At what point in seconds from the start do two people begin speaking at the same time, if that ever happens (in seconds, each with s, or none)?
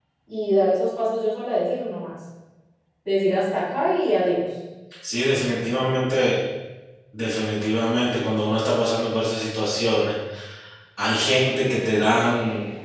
none